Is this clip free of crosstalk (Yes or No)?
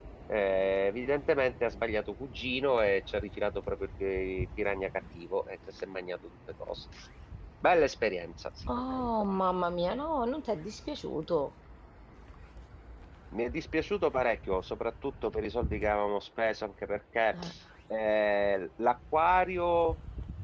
Yes